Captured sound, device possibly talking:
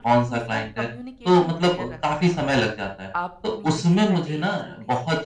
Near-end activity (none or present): present